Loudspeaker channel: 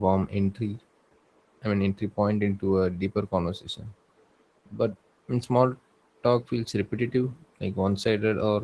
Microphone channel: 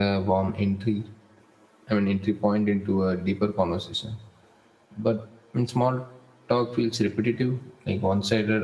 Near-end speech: none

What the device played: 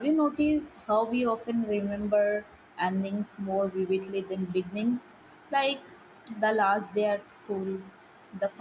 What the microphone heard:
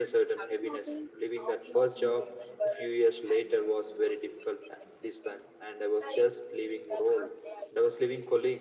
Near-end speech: present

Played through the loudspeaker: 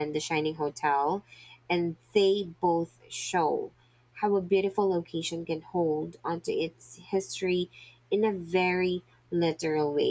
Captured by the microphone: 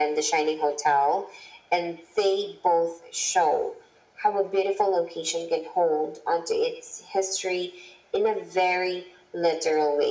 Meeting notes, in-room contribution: none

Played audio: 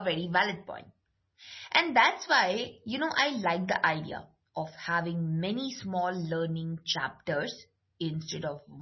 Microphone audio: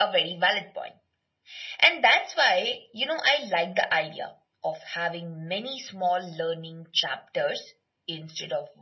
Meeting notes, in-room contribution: none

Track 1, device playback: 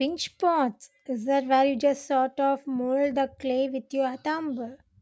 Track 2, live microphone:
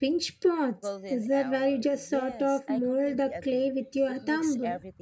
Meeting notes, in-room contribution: present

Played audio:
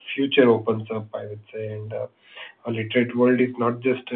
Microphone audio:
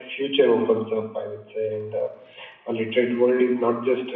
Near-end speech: none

